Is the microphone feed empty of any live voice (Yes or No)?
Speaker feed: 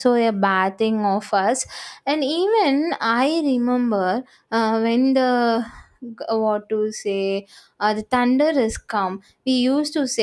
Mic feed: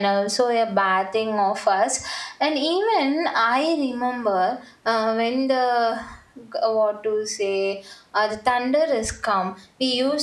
Yes